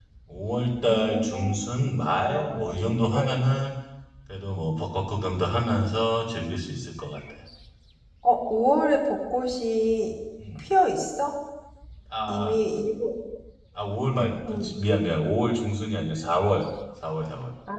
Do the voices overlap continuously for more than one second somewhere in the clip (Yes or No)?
Yes